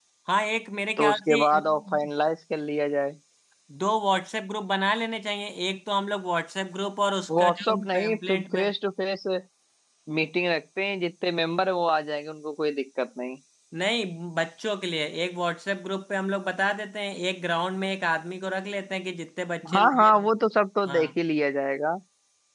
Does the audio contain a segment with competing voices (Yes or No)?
Yes